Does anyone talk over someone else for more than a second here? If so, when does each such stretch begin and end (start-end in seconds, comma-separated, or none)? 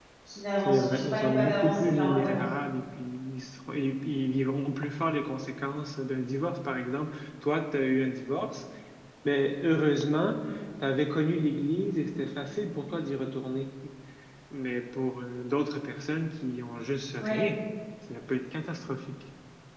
0.6-2.4